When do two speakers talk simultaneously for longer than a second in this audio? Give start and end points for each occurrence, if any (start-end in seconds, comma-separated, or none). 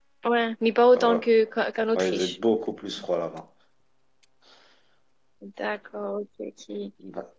none